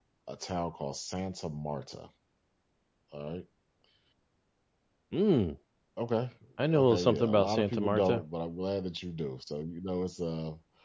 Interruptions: present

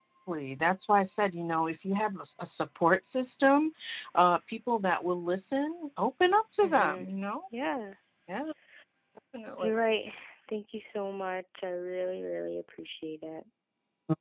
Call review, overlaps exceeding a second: none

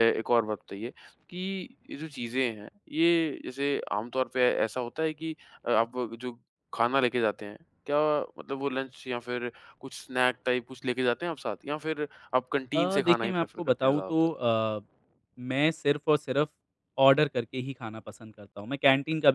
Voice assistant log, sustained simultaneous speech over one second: present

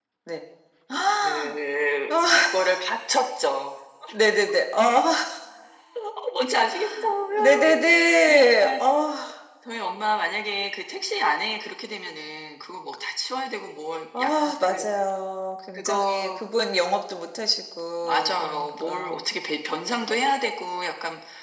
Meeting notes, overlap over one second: present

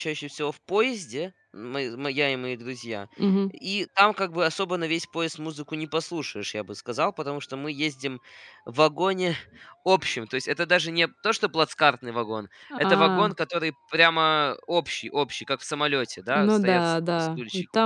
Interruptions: present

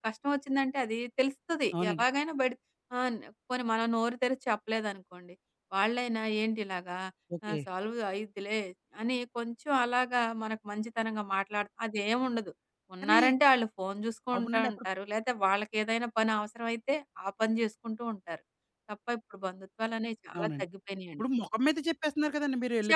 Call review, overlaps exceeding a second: none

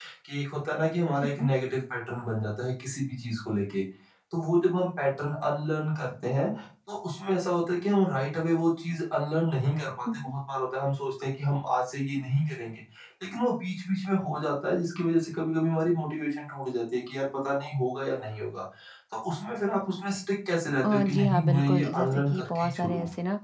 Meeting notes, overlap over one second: present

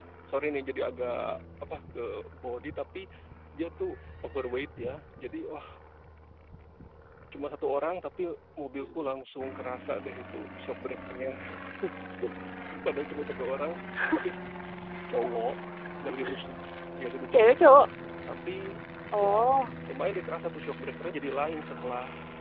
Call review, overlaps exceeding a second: none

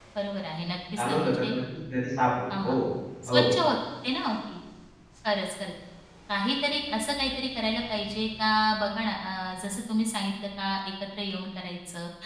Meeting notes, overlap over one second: none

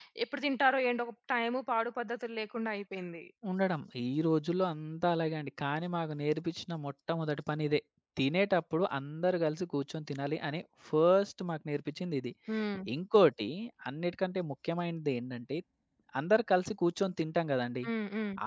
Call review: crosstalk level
none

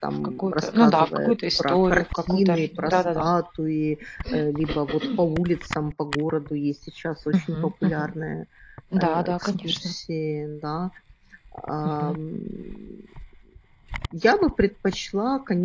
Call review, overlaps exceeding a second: present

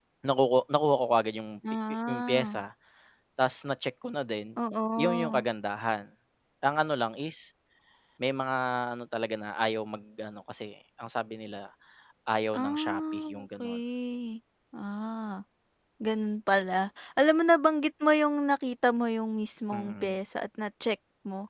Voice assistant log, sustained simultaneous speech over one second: present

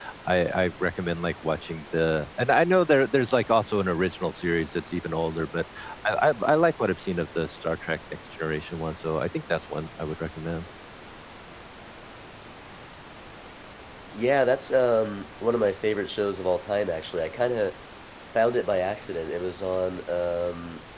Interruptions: none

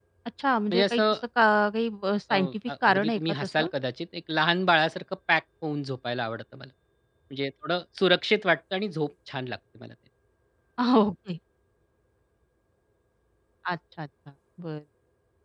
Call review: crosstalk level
present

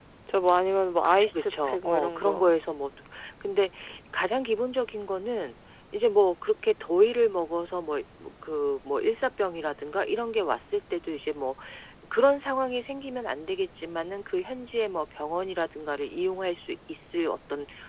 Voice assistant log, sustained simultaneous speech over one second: present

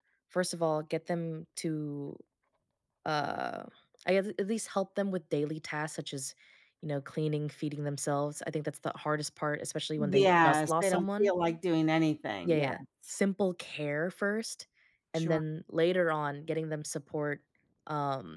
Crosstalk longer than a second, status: present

